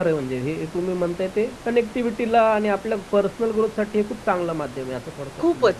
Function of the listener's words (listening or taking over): taking over